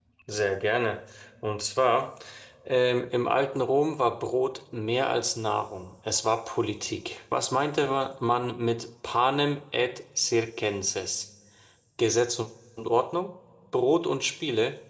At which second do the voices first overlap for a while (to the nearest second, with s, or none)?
none